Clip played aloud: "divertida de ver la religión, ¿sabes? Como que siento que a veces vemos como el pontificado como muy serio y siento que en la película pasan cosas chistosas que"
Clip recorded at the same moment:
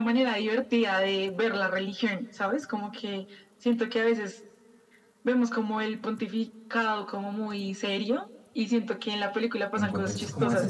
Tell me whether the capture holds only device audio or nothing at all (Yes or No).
No